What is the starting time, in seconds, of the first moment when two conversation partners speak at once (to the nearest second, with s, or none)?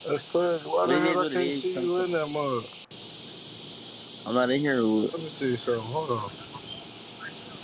1 s